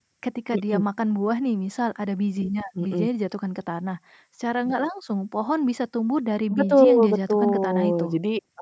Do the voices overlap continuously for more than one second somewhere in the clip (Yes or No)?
Yes